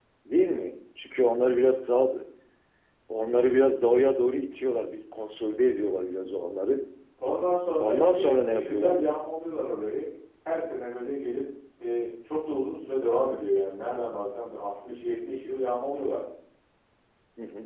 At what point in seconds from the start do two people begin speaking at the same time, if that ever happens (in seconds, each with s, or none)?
7.8 s